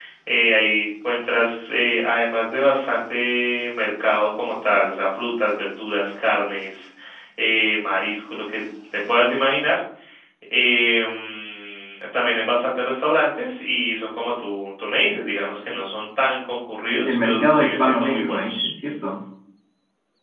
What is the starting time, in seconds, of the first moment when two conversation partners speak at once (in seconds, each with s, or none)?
17.0 s